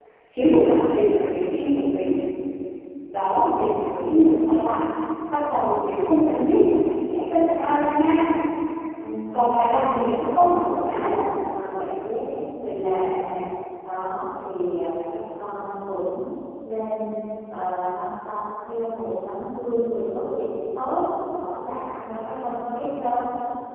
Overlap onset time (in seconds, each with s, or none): 9.6 s